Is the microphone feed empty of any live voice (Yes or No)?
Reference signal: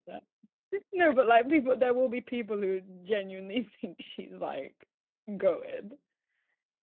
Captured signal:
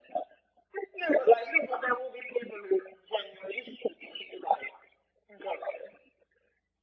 Yes